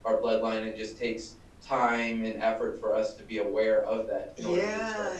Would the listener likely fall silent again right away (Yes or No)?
No